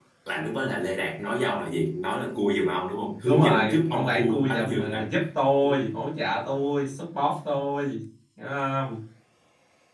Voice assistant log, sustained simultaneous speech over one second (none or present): present